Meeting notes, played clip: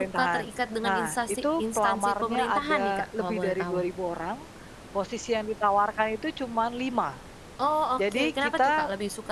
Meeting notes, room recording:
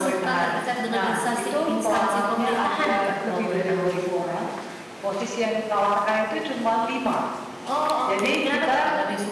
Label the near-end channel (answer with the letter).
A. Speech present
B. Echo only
B